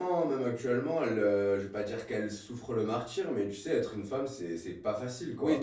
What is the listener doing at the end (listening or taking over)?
taking over